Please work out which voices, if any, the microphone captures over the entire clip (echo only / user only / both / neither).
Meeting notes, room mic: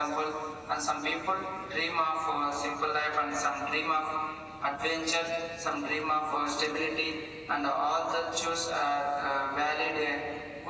echo only